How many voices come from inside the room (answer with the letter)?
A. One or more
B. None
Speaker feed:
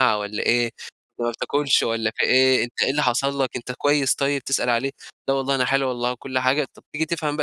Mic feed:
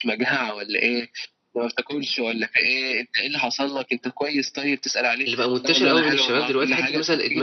A